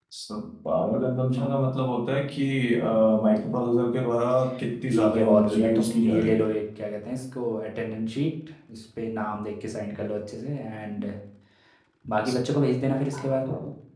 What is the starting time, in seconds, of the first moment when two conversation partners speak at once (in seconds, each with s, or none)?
4.9 s